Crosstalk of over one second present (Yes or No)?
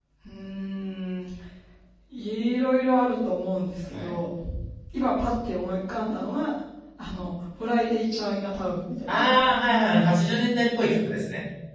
No